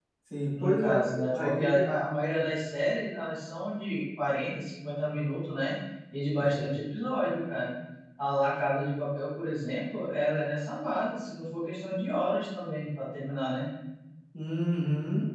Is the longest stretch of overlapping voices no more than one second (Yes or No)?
No